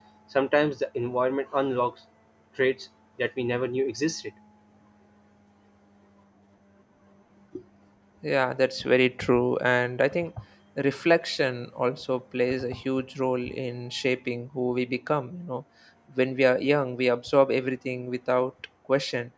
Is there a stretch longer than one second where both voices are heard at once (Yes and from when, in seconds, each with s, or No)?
No